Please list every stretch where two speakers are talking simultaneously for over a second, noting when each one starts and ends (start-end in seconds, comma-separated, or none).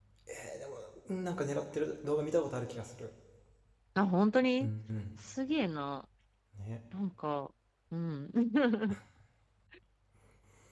none